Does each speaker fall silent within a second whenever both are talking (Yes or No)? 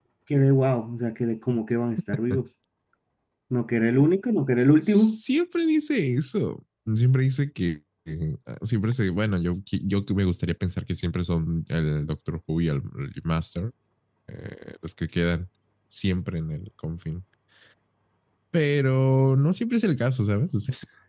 Yes